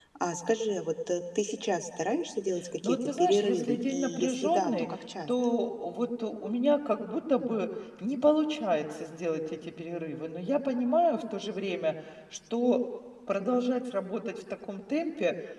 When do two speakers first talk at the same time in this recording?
2.8 s

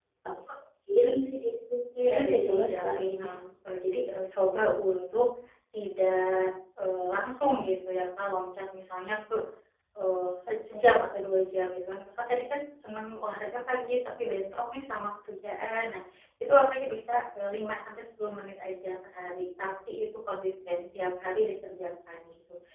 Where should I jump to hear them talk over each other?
2.0 s

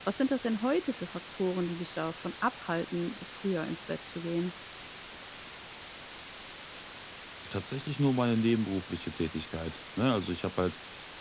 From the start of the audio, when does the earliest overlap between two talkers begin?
none

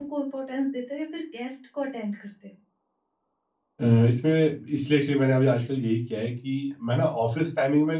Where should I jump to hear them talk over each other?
none

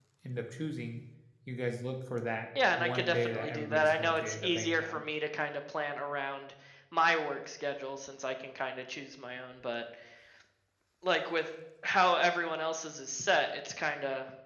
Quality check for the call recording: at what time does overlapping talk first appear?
2.6 s

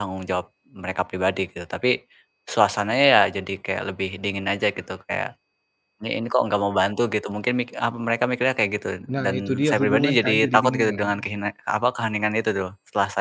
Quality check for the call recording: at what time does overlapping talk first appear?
9.2 s

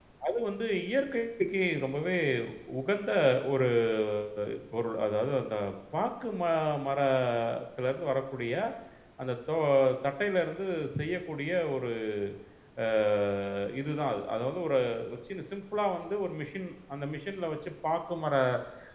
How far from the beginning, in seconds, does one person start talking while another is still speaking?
none

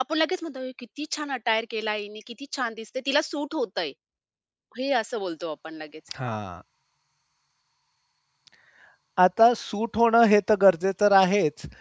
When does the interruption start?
none

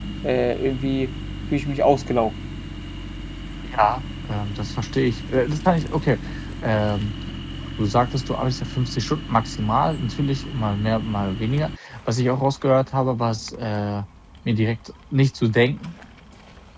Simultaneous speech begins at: none

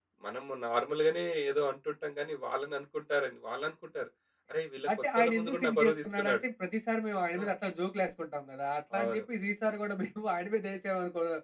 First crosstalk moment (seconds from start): 5.2 s

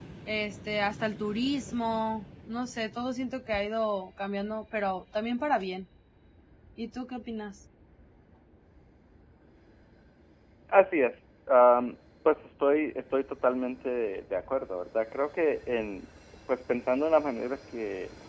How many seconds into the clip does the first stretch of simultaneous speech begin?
none

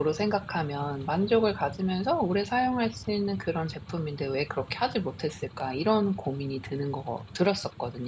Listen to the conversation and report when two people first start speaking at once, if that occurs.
none

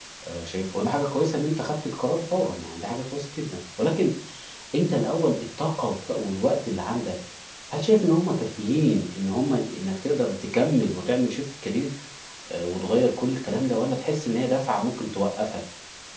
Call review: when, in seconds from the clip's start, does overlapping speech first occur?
none

